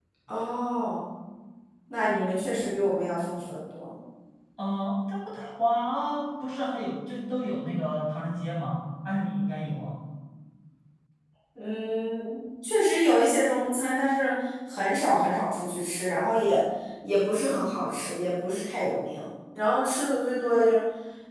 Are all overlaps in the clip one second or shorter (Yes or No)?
Yes